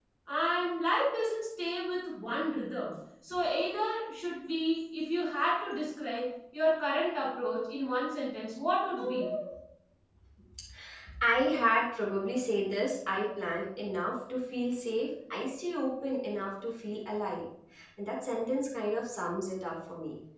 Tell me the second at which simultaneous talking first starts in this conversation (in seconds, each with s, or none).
none